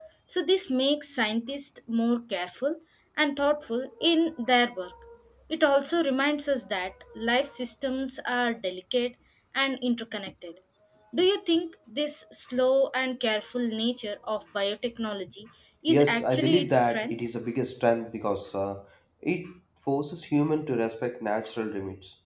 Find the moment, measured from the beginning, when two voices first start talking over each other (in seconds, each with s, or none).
15.9 s